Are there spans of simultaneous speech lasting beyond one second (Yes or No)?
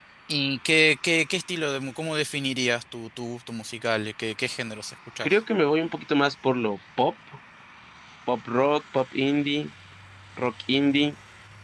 No